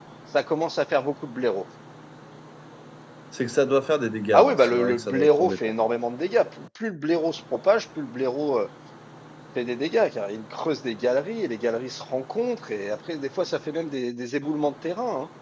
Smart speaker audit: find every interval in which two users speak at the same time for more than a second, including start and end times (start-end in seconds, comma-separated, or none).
4.3-5.6